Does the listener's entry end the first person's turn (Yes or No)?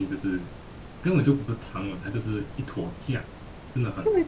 Yes